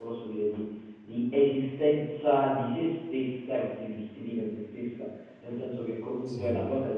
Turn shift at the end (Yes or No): No